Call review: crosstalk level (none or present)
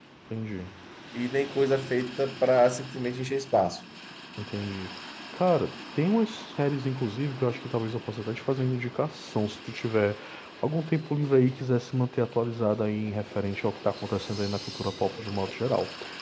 none